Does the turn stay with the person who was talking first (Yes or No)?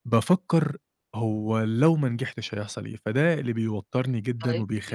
Yes